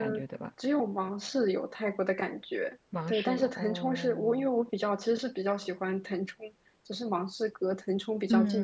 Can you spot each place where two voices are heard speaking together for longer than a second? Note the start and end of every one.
3.1-4.5

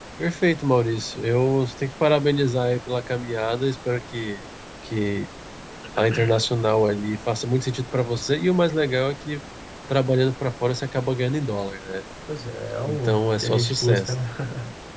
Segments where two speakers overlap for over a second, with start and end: 12.9-14.2

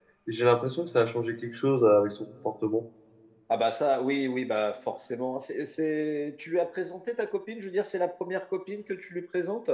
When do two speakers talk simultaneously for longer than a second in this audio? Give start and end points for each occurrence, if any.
none

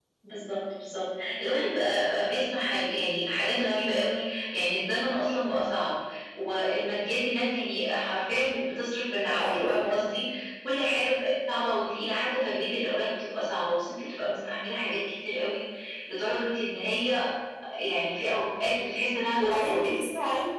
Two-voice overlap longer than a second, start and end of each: none

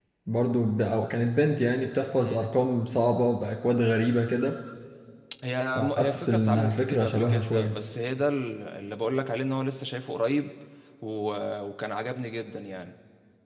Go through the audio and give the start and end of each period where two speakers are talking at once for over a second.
5.8-7.8

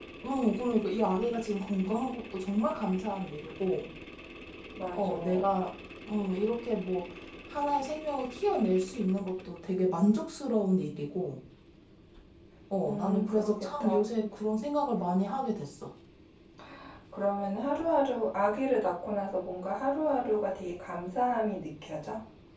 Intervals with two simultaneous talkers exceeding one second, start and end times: 12.8-14.1

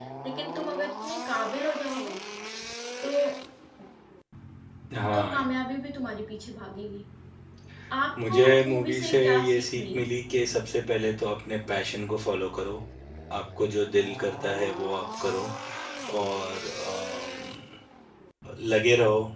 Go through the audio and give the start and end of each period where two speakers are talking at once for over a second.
8.2-10.0

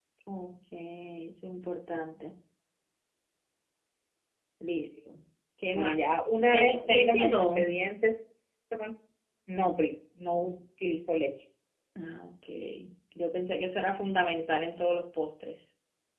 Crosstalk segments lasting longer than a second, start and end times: 6.5-7.7

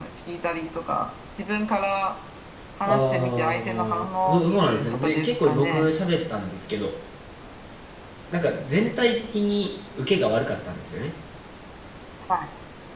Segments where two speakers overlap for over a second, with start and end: 2.9-5.9

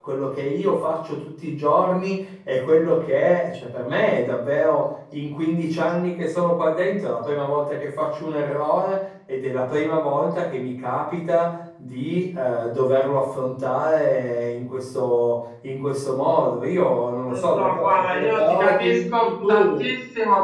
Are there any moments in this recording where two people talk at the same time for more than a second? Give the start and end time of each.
17.3-19.9

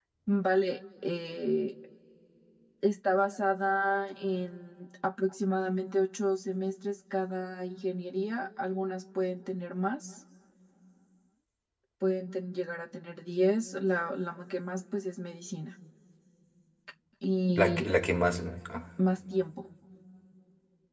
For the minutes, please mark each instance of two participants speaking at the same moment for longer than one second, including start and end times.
none

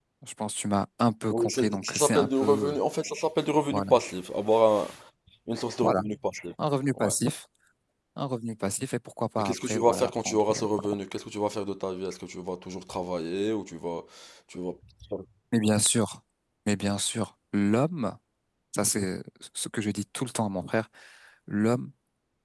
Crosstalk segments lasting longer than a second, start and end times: 1.3-2.8, 9.4-10.6

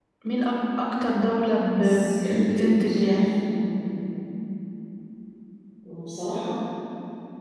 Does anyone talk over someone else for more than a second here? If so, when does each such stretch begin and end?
1.8-3.2

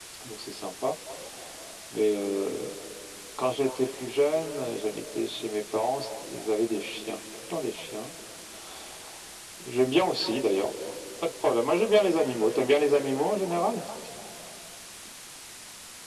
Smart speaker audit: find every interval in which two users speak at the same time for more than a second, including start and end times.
none

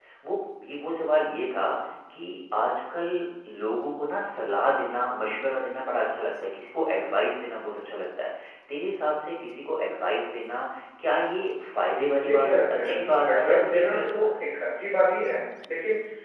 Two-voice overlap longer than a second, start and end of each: 12.1-14.4

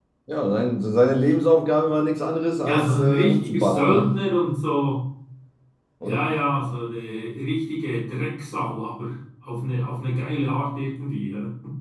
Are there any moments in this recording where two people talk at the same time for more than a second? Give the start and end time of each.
2.6-4.2

